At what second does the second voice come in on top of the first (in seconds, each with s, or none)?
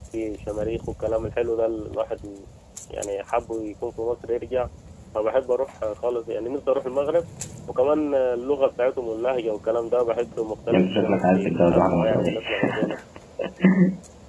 10.7 s